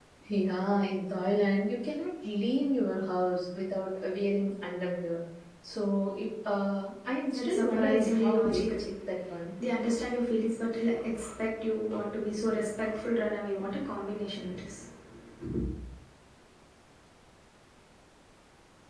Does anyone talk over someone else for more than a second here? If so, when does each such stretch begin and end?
7.4-8.8

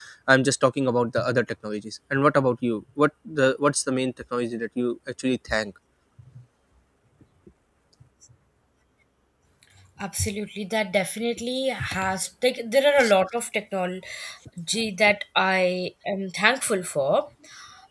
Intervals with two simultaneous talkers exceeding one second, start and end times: none

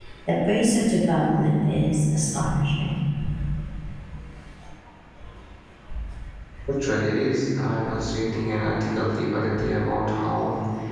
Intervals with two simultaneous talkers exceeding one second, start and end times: none

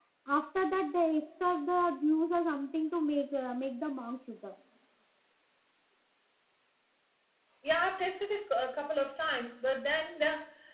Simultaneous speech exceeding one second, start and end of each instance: none

